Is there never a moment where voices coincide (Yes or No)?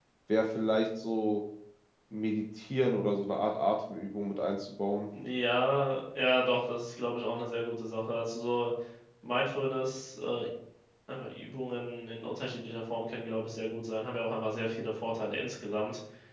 Yes